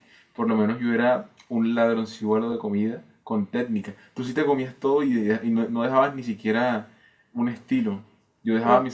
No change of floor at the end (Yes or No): No